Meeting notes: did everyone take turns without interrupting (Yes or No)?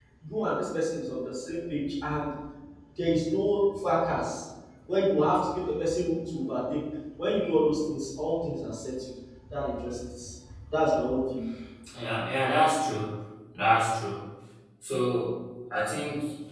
Yes